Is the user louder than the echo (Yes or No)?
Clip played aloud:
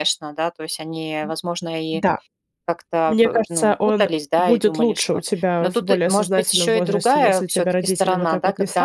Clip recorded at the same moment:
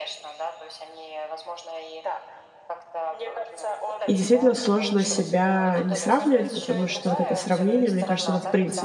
Yes